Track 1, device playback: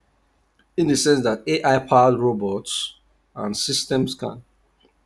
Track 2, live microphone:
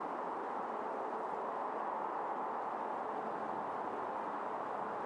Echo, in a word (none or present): none